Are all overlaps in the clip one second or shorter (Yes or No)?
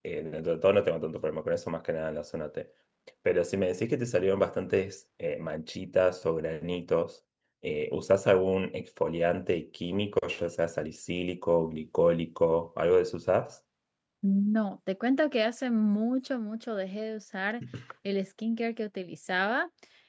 Yes